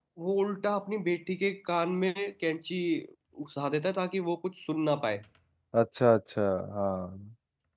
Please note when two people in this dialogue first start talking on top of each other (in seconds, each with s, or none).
none